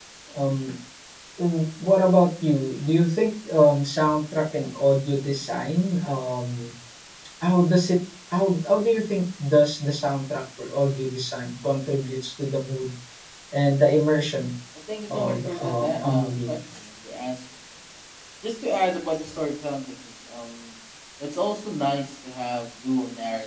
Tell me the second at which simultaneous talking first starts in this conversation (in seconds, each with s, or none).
15.1 s